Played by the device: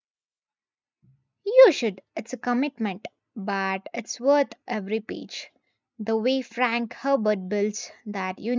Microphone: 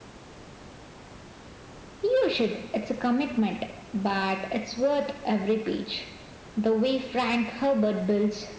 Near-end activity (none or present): none